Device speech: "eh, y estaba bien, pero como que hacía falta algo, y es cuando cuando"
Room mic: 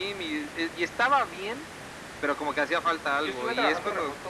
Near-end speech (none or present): present